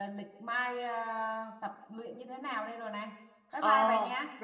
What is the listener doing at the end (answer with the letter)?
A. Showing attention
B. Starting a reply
B